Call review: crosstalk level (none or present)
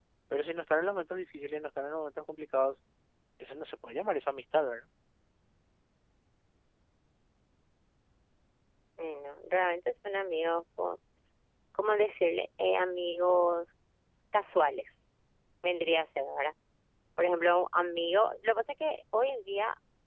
none